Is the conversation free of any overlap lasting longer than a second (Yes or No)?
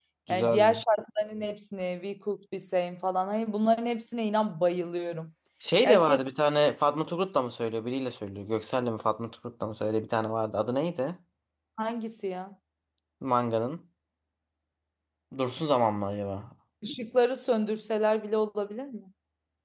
Yes